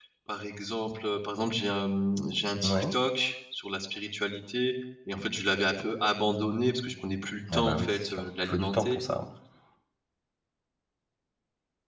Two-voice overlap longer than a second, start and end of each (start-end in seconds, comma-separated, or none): 7.5-9.0